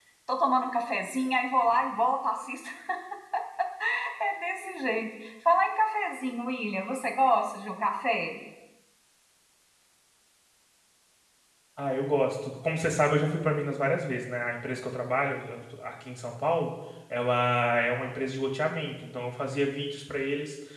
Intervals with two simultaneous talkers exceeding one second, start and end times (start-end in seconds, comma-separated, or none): none